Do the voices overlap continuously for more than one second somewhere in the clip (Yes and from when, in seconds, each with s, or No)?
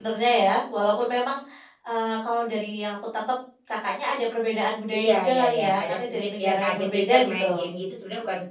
Yes, from 4.9 s